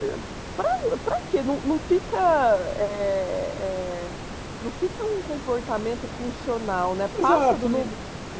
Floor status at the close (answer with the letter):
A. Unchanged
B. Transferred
B